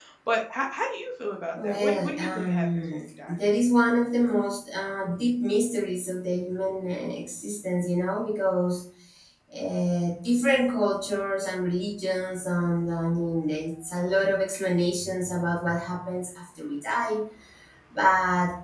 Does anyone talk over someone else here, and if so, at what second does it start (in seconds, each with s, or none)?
1.6 s